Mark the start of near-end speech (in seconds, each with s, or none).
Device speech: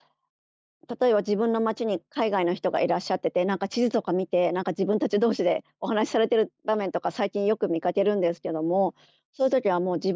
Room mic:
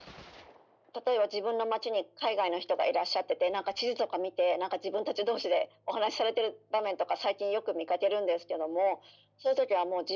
none